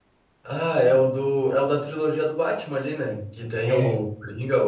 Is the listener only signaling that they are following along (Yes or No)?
Yes